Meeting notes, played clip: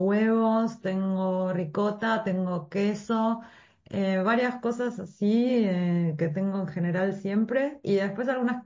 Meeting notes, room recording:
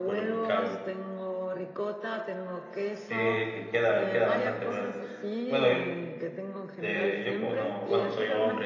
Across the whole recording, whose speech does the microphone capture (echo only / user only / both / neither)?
both